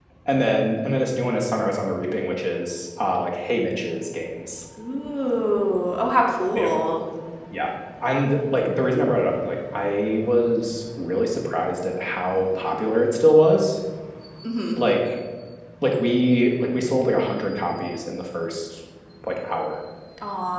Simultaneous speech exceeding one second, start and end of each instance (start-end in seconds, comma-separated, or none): none